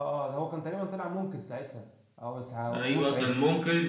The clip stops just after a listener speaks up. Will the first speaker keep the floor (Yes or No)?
No